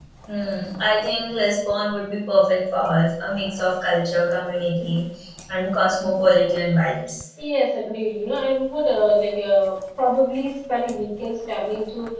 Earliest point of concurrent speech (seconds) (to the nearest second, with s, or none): none